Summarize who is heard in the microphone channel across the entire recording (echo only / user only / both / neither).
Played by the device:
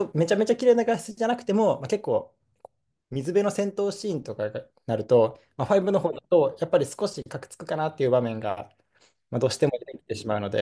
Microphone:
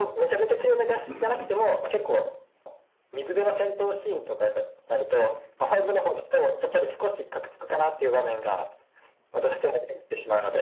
both